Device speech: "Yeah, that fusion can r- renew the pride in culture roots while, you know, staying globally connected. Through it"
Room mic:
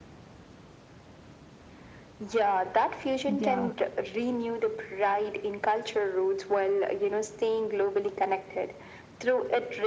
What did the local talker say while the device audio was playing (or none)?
Yeah.